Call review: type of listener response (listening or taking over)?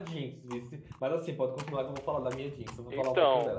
taking over